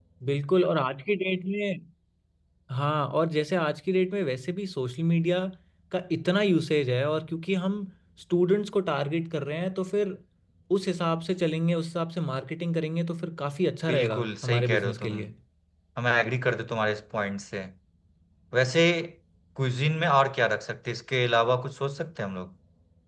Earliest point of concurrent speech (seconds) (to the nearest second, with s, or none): 14 s